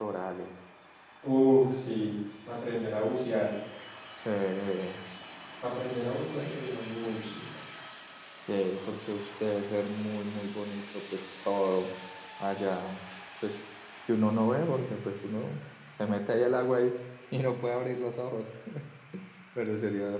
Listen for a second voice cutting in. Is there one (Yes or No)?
No